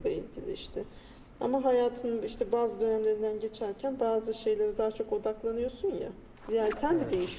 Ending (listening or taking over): listening